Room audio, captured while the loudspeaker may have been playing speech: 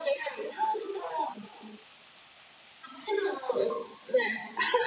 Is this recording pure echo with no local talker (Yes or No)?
Yes